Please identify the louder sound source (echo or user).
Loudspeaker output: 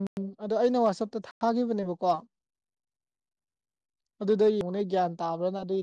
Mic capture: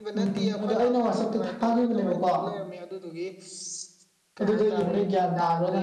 echo